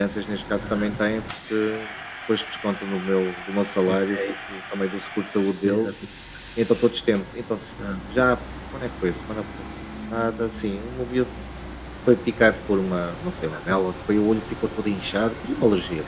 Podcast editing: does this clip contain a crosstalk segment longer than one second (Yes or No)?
No